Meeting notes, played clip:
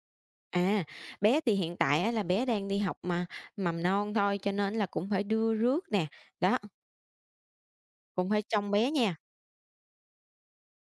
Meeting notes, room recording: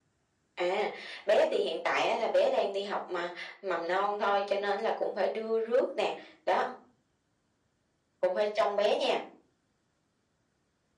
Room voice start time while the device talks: none

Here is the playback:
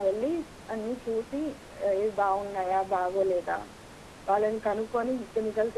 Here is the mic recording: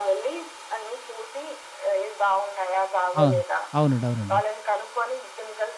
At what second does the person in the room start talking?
3 s

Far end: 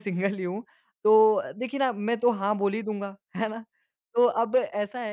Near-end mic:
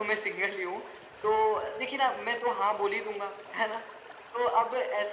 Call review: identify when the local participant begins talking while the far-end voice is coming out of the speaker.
none

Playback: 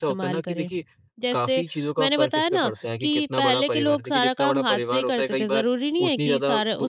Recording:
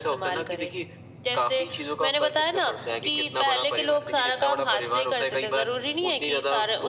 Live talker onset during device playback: none

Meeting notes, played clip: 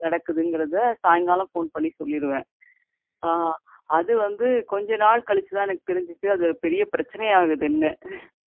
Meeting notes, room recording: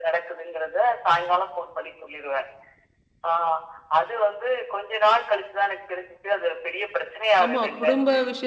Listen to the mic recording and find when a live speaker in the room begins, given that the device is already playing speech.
7 s

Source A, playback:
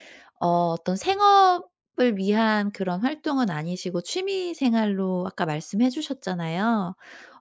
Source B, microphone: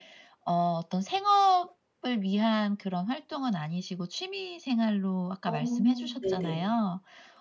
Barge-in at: 5 s

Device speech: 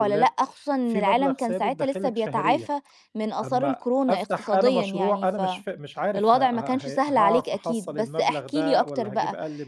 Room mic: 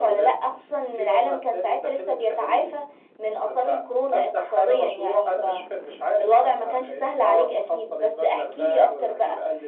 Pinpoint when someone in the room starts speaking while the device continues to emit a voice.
none

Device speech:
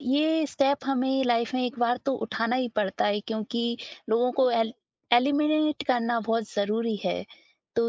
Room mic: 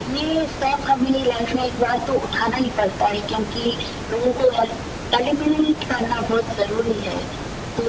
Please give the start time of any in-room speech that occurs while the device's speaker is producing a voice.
none

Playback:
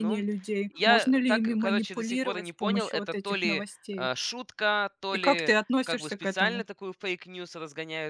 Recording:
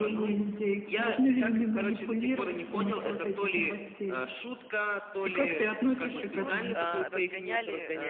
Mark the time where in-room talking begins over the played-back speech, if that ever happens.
6 s

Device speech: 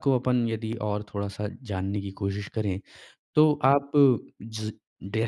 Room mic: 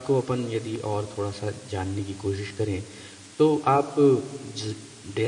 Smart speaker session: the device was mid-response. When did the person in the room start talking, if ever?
none

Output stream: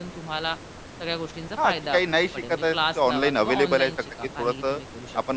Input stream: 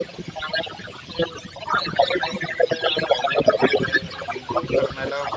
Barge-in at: 4 s

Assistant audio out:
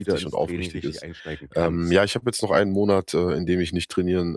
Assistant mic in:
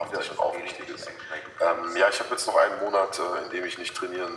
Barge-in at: none

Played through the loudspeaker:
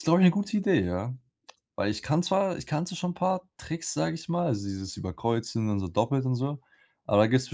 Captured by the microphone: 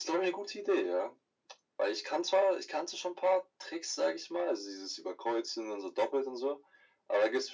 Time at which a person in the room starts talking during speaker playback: none

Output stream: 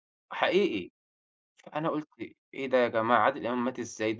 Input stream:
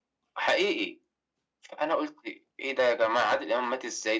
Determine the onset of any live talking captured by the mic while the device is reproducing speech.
none

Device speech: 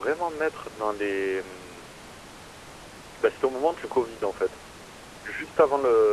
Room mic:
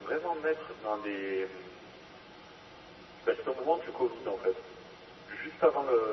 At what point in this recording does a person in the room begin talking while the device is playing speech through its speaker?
none

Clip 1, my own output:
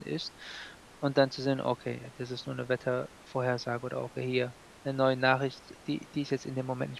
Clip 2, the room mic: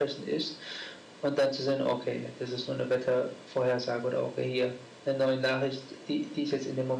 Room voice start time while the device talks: none

